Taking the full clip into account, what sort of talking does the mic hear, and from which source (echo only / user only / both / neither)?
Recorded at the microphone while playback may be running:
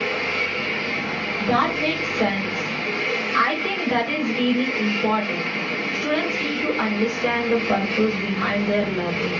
echo only